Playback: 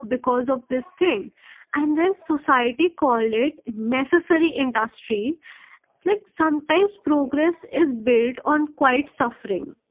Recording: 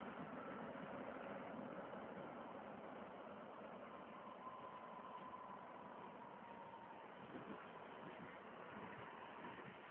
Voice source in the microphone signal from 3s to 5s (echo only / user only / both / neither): neither